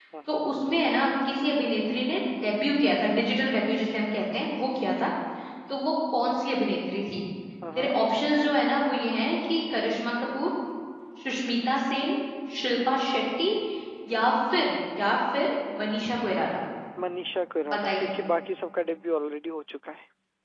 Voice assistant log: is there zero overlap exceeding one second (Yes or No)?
Yes